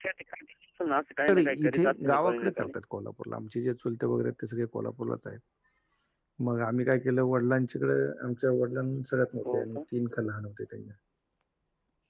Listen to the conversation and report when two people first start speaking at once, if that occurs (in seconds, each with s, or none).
1.3 s